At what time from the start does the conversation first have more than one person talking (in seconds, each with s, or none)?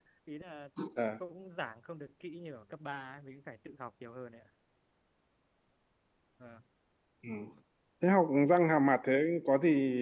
none